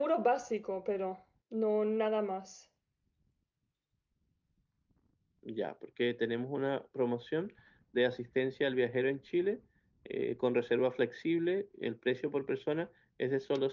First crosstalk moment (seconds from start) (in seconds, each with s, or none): none